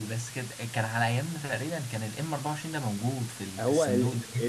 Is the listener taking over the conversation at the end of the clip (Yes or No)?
Yes